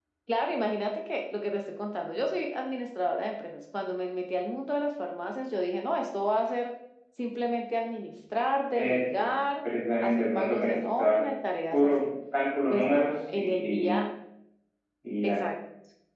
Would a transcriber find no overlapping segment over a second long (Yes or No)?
No